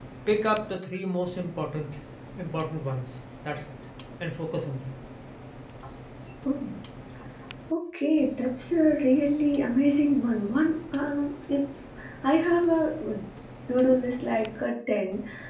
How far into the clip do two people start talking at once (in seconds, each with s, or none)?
none